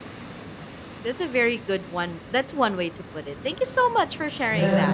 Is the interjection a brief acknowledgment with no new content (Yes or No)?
No